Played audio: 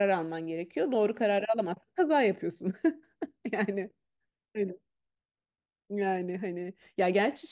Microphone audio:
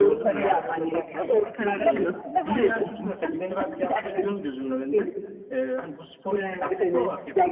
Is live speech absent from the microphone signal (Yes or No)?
No